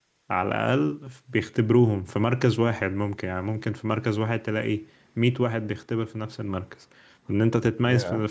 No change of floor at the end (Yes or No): Yes